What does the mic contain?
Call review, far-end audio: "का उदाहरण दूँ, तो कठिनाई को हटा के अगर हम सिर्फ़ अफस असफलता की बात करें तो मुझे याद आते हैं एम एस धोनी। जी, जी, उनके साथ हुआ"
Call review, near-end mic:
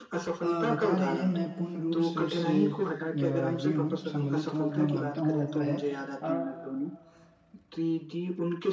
both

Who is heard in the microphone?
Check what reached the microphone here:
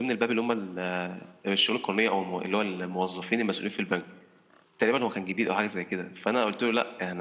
echo only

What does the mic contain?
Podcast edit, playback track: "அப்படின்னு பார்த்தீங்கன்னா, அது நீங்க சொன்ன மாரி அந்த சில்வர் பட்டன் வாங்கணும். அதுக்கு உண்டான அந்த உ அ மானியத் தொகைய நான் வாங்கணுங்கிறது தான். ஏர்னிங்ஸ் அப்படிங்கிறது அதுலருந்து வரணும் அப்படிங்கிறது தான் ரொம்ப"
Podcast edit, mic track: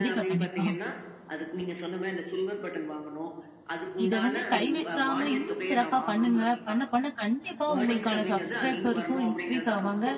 both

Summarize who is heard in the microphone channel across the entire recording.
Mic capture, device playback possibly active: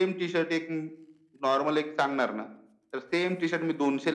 echo only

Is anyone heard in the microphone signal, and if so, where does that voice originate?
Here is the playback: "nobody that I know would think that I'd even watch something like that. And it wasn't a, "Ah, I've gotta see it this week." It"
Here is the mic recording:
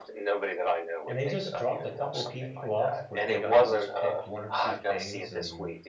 both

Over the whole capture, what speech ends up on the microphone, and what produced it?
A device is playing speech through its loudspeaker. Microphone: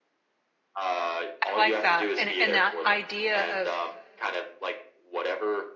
both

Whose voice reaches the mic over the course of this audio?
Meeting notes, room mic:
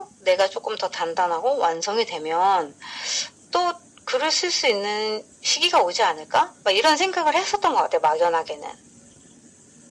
echo only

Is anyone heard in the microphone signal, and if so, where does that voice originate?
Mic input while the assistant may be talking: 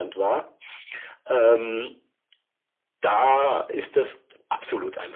echo only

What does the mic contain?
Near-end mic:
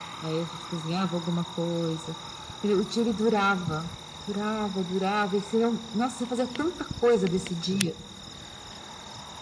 echo only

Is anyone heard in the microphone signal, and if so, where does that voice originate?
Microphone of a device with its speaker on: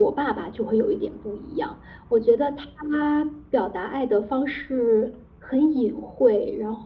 echo only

